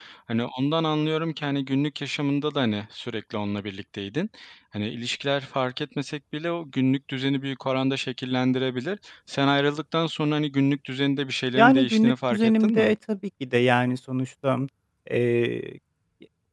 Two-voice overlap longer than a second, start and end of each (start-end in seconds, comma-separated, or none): 11.6-12.9